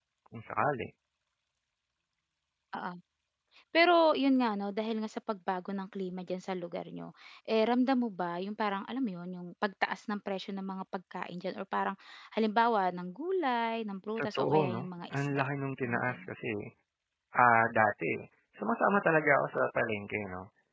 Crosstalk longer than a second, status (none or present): present